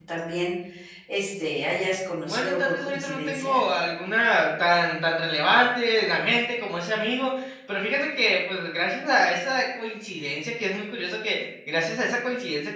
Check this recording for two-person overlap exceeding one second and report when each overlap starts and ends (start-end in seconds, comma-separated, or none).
2.3-3.6